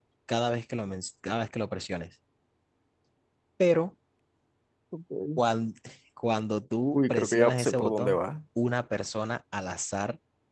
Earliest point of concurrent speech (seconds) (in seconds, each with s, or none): 7.0 s